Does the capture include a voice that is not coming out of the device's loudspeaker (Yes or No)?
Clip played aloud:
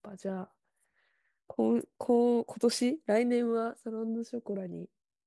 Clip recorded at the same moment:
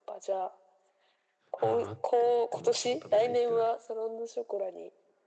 Yes